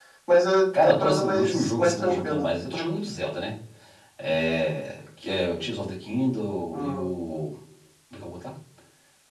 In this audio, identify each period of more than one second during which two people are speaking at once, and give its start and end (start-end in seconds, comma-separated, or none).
0.8-2.5